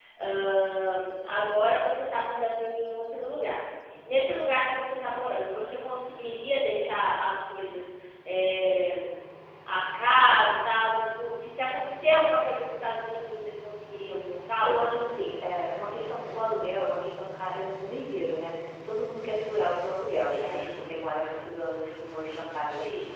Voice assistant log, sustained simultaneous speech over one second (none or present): none